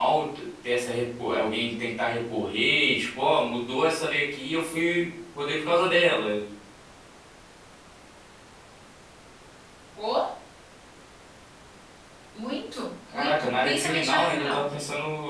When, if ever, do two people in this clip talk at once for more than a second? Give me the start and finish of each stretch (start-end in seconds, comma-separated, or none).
13.1-14.6